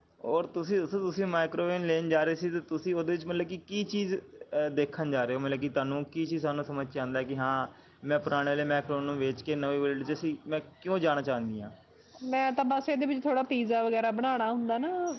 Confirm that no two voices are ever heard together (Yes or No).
Yes